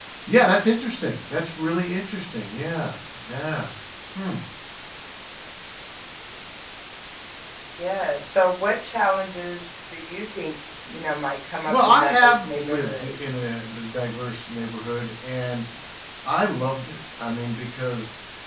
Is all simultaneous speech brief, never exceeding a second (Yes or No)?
No